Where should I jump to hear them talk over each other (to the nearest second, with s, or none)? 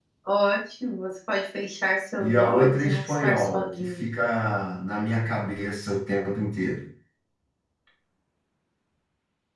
2 s